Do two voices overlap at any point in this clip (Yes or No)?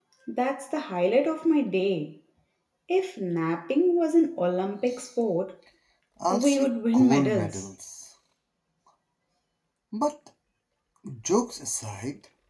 Yes